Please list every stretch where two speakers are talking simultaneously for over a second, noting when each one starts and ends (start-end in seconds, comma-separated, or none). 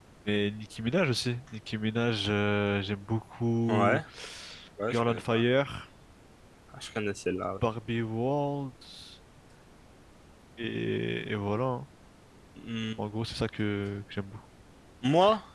none